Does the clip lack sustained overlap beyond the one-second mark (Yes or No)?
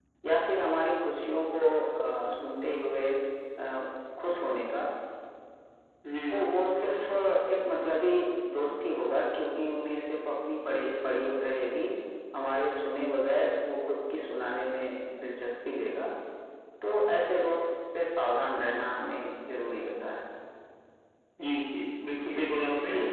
Yes